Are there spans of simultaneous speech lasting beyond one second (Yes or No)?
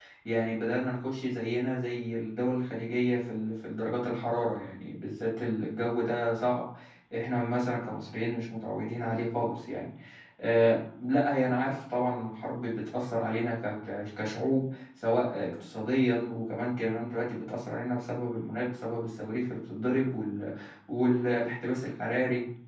No